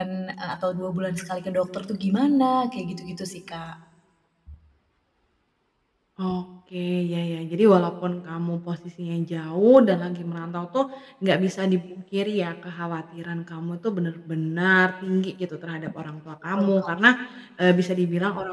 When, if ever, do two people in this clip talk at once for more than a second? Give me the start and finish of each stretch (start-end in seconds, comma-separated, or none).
none